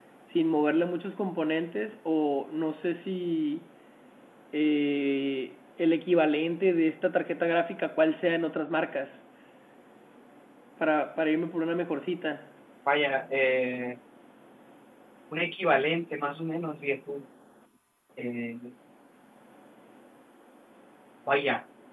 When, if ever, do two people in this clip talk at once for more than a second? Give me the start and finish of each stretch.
none

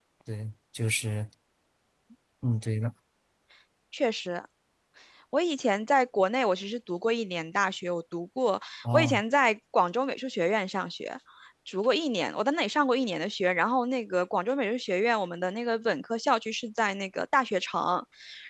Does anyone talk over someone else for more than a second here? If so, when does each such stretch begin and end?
none

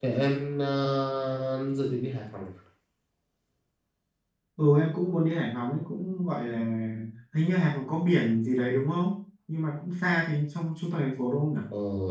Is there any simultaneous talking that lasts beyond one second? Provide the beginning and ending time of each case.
none

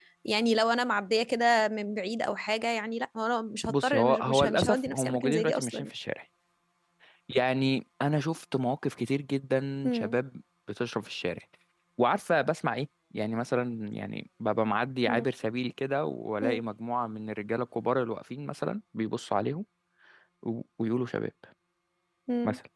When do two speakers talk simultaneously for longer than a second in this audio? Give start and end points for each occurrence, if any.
3.7-5.9

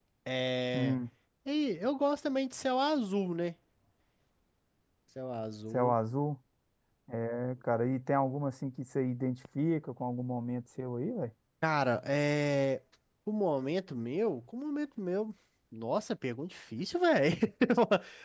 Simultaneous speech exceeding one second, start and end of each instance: none

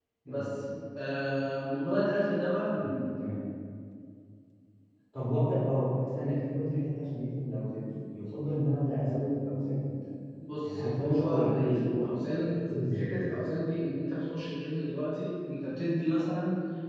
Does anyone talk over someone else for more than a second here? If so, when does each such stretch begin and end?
10.7-12.3

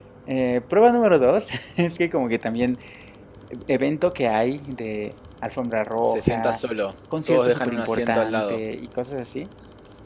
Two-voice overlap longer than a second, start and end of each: 7.3-8.6

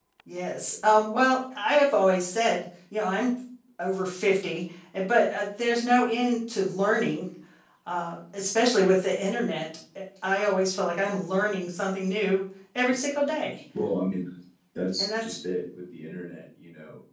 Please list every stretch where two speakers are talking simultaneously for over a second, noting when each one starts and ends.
none

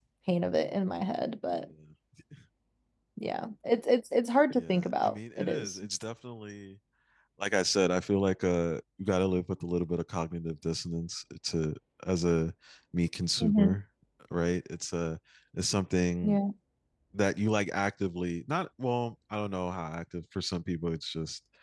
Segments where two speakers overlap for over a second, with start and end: 4.5-5.8

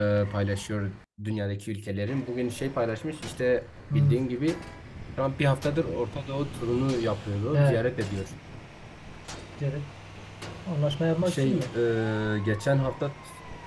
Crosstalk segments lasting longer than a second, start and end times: none

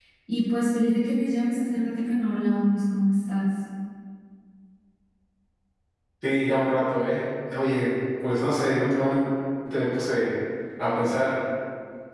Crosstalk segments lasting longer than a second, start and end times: none

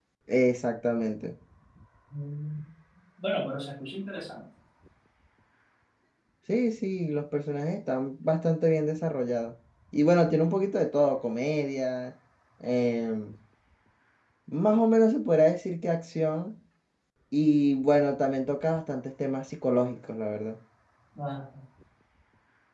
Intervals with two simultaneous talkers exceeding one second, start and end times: none

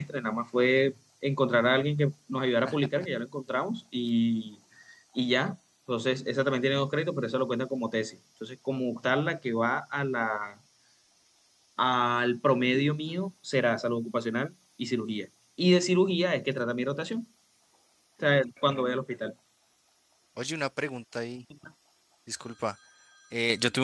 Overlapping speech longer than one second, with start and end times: none

